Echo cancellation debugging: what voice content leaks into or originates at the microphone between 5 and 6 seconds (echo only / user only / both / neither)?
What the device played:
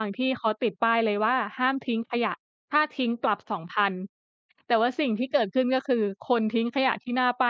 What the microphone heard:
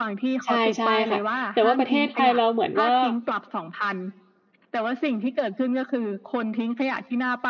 echo only